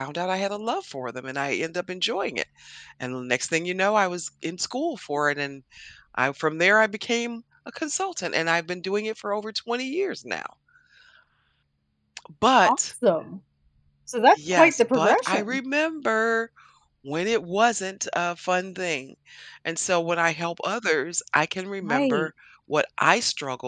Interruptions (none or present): present